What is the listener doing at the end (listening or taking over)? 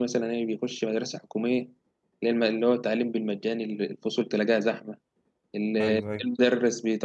listening